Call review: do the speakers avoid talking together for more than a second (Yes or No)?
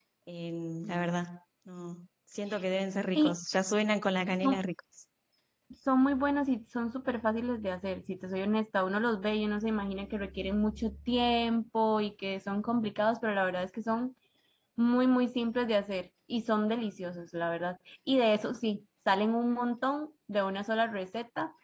Yes